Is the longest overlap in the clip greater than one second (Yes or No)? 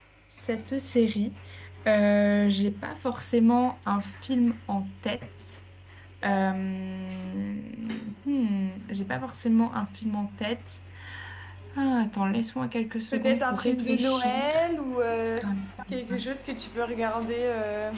Yes